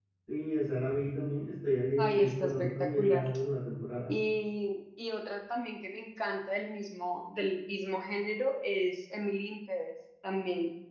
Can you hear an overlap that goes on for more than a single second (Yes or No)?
Yes